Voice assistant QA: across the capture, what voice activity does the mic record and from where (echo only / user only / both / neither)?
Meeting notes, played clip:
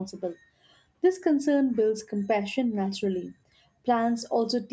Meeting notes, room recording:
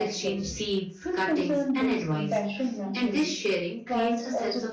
both